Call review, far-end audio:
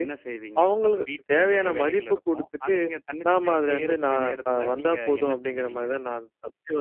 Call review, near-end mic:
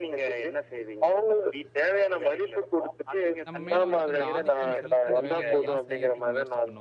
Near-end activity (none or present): present